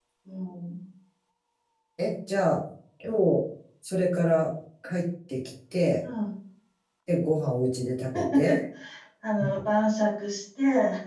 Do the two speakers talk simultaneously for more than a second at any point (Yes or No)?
No